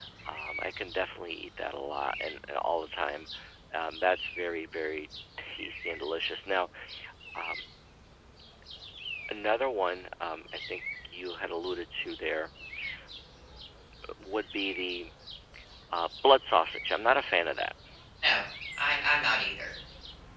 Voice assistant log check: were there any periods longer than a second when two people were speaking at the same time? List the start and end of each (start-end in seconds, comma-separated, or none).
none